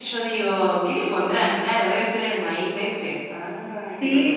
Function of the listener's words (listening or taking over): taking over